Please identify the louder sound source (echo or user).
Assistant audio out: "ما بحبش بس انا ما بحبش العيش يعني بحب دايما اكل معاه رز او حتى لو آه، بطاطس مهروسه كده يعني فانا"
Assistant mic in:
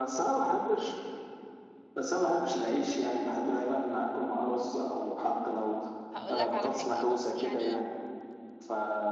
echo